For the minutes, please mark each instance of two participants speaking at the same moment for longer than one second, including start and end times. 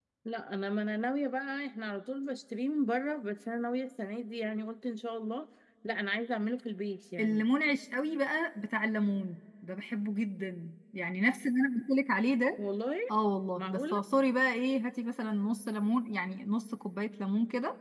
none

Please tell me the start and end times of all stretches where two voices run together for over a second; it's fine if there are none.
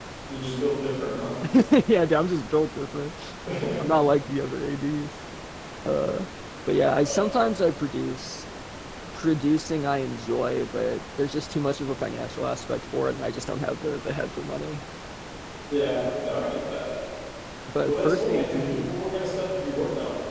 17.8-19.1

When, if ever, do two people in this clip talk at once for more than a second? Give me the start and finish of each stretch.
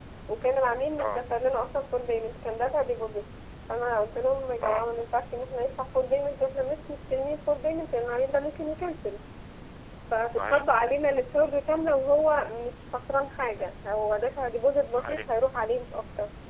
none

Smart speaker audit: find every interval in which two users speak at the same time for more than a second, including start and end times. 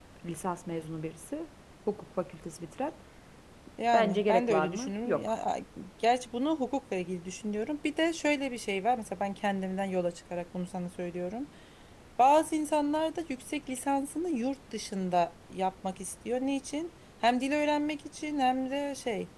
3.9-5.3

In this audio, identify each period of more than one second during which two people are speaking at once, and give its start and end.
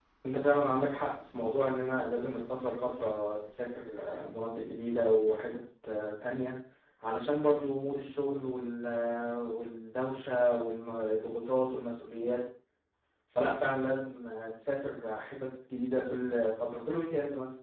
none

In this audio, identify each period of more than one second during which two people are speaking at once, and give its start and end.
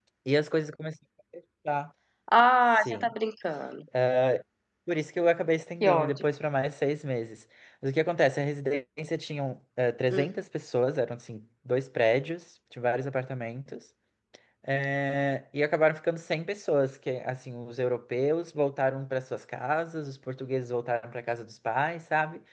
none

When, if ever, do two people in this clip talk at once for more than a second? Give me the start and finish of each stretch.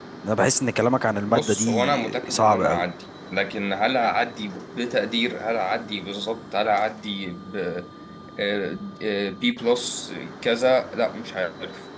1.3-2.8

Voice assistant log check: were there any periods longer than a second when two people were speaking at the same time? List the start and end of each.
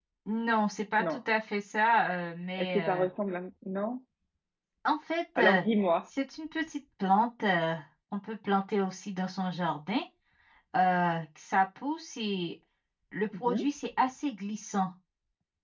none

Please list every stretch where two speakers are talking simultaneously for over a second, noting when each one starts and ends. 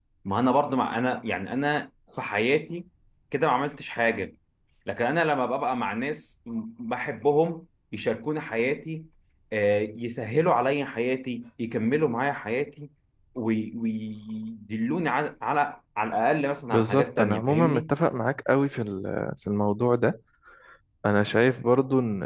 16.7-17.9

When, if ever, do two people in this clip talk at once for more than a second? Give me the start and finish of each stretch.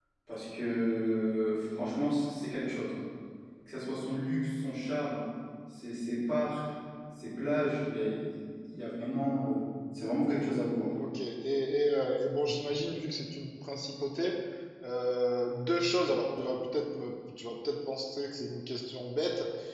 none

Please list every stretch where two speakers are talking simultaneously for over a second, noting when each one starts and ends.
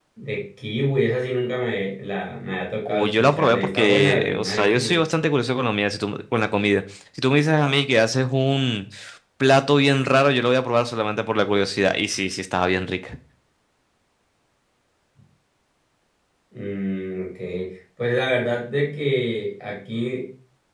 2.9-5.0

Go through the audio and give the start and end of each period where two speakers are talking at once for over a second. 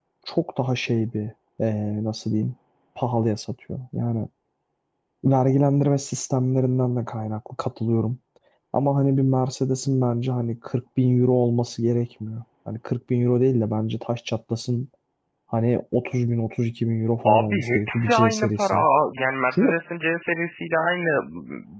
17.2-18.9

